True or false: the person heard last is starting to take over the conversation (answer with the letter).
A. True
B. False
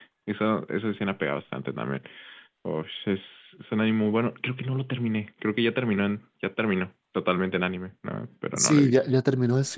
A